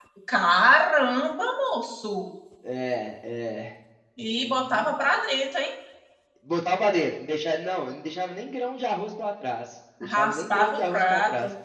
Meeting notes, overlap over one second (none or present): present